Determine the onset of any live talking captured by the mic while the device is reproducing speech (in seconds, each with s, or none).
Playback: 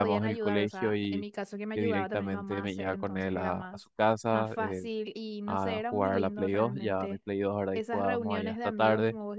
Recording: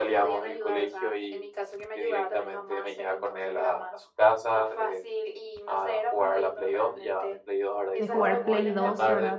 8.0 s